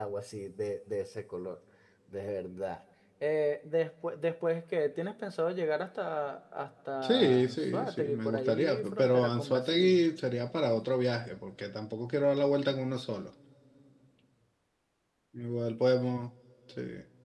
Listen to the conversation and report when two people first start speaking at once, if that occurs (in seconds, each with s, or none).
7.0 s